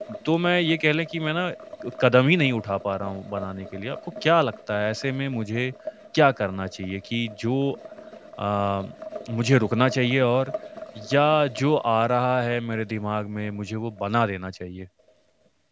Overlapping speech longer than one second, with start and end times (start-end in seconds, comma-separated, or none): none